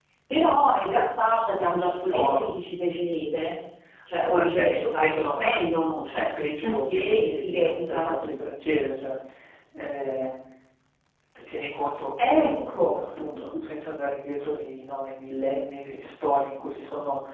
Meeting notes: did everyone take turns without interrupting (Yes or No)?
No